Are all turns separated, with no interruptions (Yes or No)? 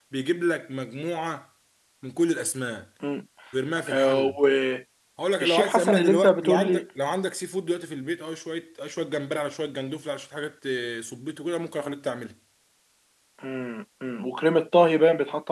No